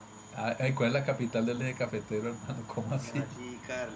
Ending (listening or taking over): taking over